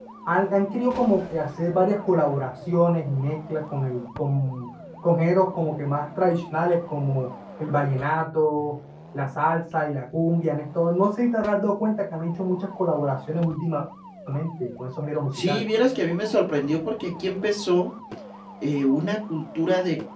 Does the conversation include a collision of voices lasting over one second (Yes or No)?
No